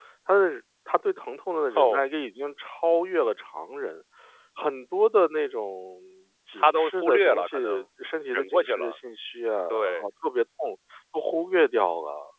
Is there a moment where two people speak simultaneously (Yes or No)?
Yes